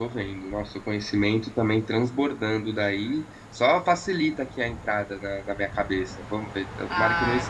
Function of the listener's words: taking over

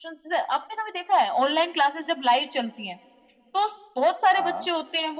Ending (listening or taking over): listening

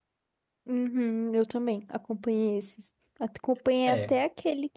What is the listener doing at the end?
listening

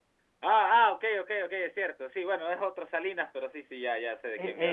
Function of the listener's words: taking over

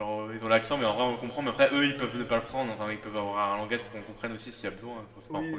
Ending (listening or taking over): taking over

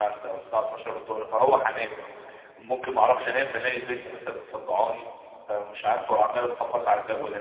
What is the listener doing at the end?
listening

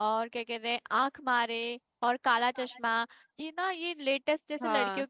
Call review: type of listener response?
listening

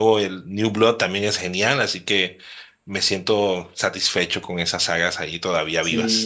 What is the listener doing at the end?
taking over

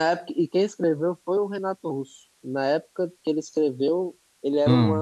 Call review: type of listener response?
listening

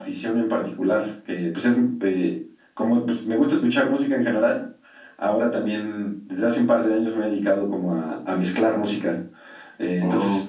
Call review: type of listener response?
listening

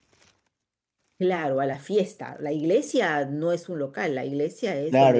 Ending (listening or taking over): taking over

